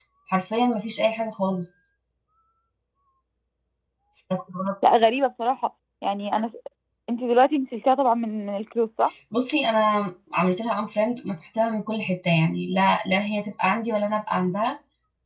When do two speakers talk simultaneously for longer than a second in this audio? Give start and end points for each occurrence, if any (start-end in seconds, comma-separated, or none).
none